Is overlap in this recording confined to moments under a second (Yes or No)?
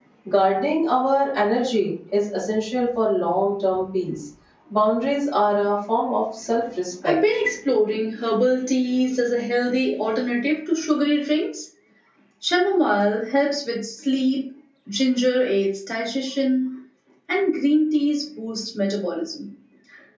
Yes